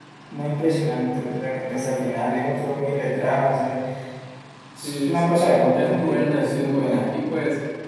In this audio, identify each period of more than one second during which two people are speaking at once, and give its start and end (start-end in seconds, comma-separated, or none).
4.8-7.1